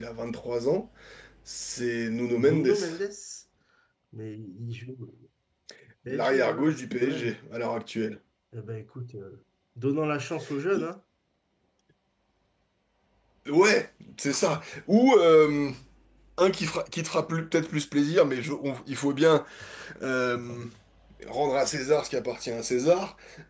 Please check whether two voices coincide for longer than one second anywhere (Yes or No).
Yes